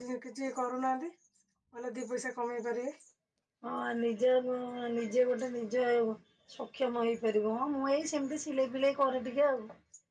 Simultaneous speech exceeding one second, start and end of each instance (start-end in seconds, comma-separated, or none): none